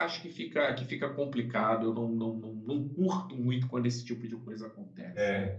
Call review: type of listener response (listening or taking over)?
taking over